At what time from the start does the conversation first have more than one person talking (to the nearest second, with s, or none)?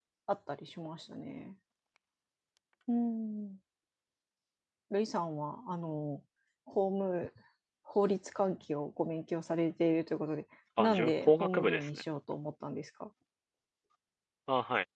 11 s